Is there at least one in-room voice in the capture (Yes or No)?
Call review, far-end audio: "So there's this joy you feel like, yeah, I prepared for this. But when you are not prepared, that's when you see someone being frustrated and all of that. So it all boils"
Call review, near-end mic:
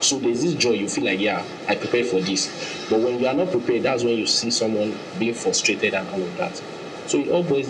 No